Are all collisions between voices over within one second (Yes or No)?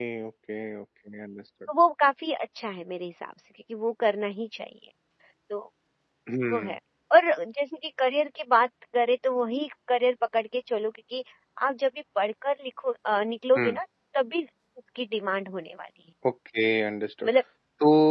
Yes